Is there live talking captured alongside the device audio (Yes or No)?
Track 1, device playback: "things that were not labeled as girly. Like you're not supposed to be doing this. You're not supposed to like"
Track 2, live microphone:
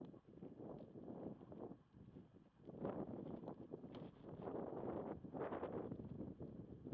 No